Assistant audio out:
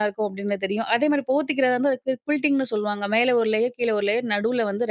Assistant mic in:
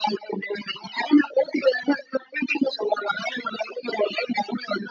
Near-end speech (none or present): none